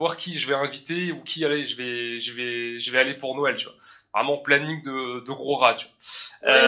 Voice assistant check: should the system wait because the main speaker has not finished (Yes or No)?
No